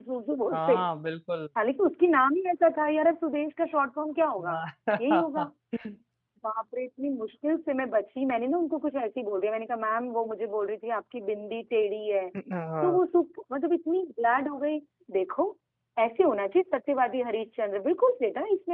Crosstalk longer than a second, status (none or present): none